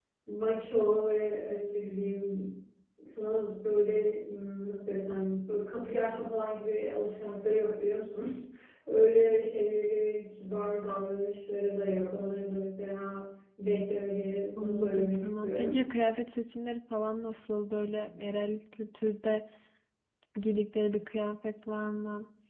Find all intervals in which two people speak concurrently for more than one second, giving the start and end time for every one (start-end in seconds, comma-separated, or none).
14.6-15.8